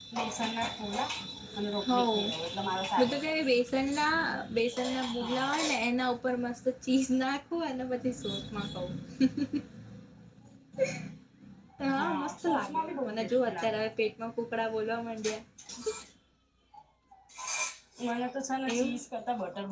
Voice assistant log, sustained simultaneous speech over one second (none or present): present